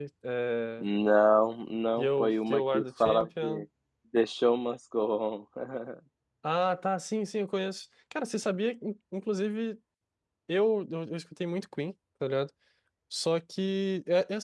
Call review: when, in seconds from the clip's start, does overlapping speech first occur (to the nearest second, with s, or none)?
2 s